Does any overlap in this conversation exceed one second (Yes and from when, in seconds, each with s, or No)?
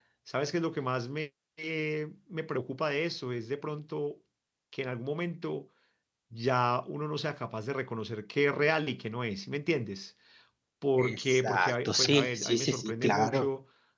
Yes, from 11.0 s